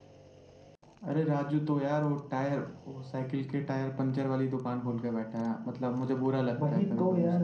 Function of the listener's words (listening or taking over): taking over